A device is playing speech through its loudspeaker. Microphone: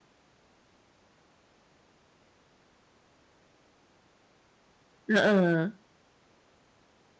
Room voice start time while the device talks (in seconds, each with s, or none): 5.1 s